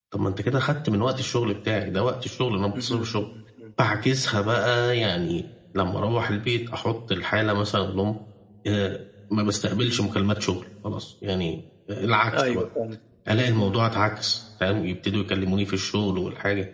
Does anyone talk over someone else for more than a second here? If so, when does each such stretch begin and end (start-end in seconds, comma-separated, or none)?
none